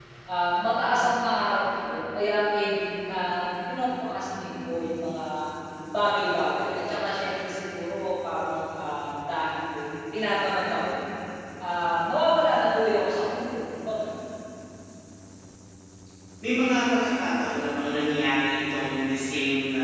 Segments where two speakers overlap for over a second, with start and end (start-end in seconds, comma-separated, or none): none